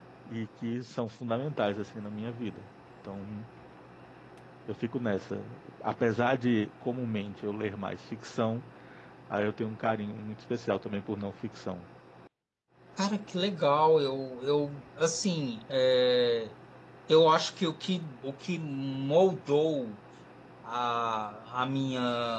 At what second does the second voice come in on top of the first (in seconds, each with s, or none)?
none